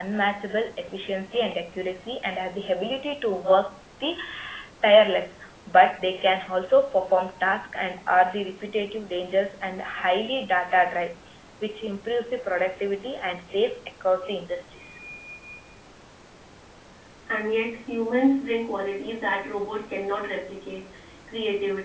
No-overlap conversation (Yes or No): Yes